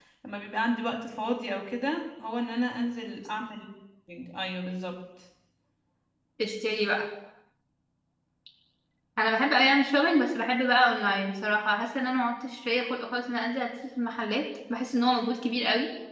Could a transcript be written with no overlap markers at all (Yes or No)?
Yes